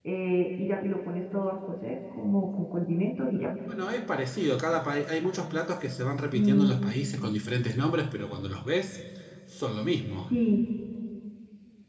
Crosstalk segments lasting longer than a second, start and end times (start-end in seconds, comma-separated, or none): none